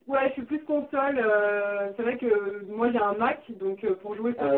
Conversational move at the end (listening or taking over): listening